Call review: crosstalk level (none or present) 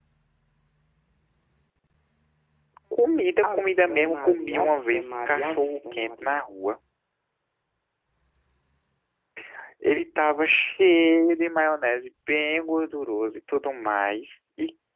present